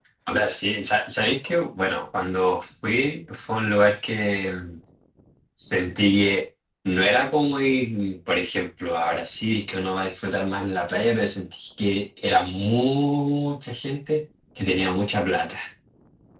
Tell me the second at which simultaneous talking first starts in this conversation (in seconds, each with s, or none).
none